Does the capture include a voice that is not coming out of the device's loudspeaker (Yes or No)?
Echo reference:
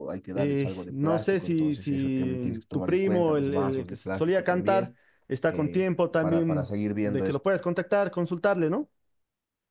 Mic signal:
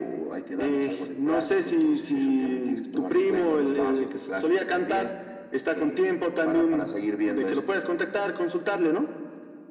No